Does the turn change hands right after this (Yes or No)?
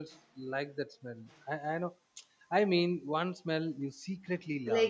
Yes